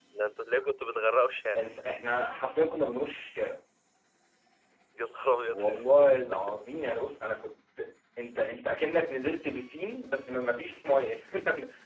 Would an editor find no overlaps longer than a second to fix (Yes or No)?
Yes